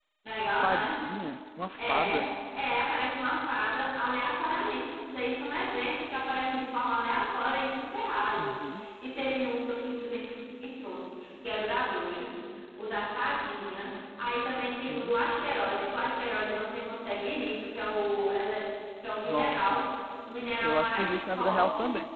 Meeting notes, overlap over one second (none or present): present